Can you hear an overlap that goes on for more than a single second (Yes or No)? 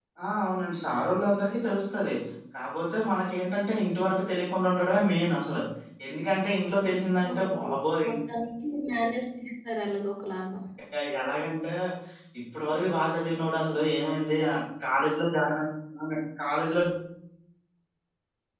No